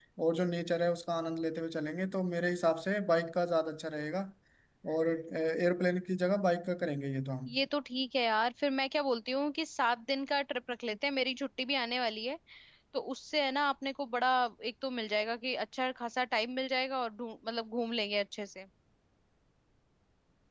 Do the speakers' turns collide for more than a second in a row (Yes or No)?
No